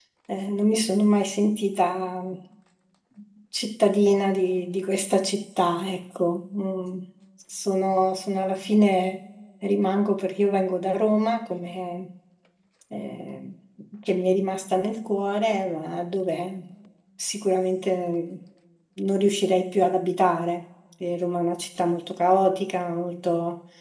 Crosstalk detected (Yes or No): No